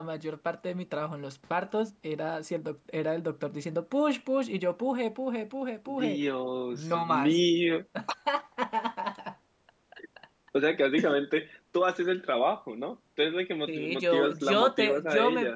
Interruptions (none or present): present